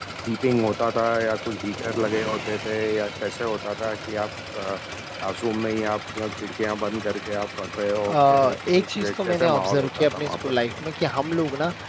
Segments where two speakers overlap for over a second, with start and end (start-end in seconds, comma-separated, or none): 8.1-10.3